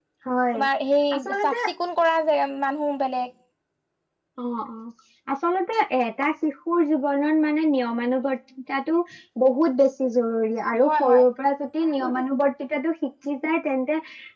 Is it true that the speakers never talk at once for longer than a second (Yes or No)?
Yes